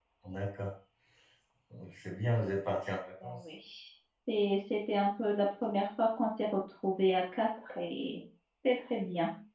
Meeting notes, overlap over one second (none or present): none